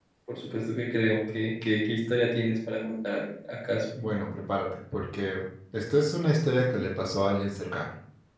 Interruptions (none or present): none